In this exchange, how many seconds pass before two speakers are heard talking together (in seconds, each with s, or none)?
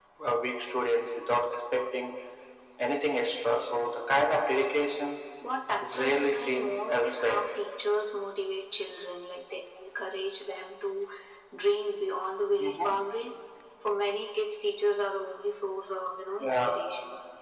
5.8 s